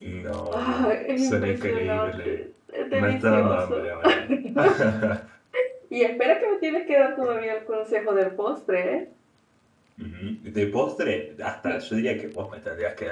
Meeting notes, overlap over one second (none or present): present